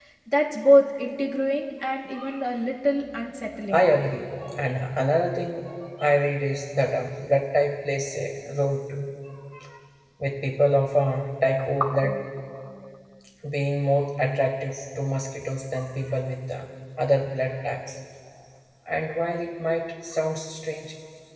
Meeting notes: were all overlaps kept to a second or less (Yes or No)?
Yes